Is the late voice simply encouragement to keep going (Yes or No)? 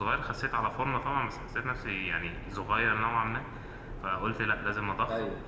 Yes